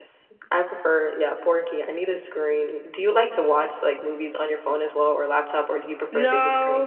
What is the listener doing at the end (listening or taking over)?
taking over